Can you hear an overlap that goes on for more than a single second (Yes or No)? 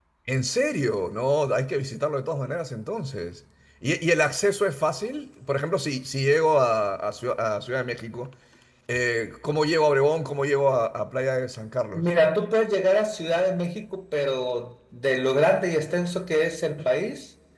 No